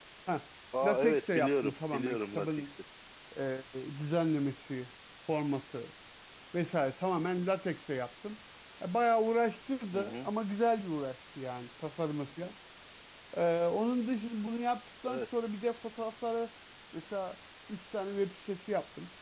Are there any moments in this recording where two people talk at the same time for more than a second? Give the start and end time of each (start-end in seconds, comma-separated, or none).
0.8-2.6